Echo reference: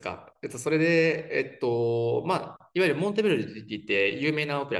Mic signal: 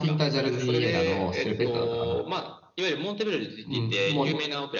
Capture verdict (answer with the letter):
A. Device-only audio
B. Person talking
B